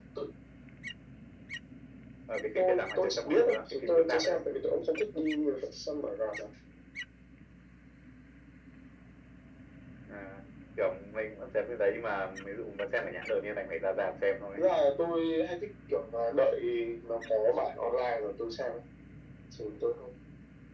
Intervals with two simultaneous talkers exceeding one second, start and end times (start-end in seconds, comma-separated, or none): 2.6-4.4